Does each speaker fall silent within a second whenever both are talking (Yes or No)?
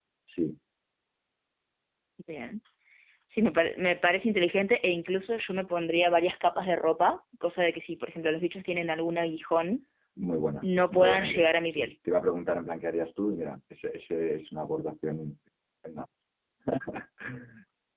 No